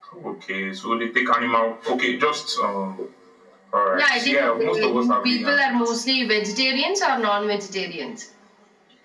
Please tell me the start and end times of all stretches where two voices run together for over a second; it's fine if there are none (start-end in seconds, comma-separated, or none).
3.9-5.8